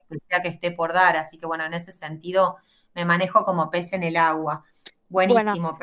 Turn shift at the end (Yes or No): Yes